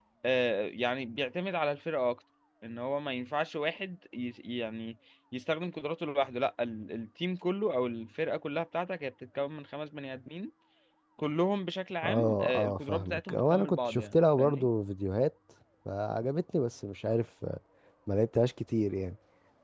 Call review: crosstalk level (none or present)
present